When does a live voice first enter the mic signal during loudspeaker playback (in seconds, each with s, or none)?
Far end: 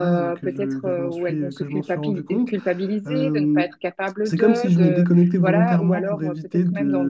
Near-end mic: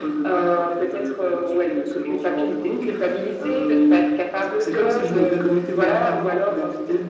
none